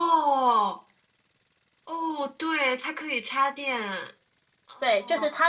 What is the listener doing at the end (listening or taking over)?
taking over